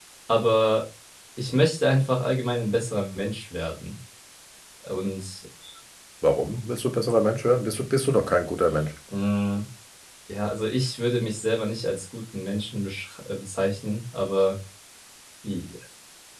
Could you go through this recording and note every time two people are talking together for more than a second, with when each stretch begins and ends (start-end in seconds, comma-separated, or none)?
none